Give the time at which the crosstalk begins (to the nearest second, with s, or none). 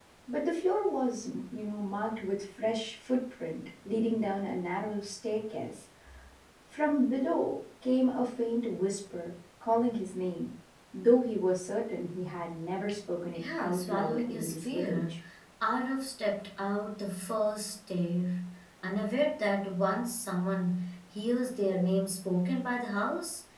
13 s